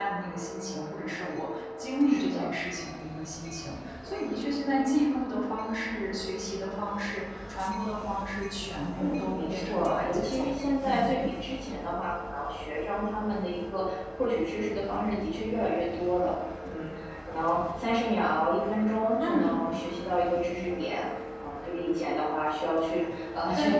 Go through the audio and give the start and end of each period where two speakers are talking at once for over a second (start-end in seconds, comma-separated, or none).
8.9-11.2